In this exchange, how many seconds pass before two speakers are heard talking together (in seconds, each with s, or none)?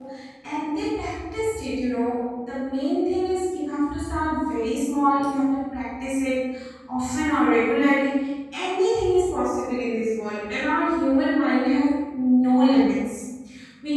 none